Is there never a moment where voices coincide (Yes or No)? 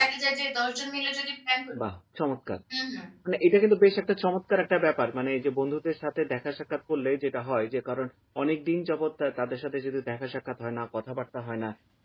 Yes